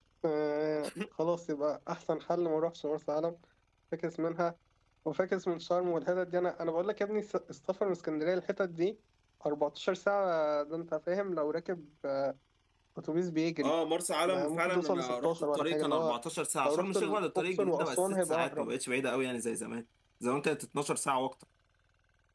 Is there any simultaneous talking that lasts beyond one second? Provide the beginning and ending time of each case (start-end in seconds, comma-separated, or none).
14.3-16.1, 16.6-18.7